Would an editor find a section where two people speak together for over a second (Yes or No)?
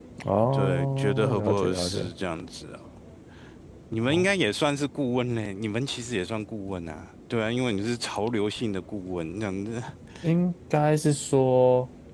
Yes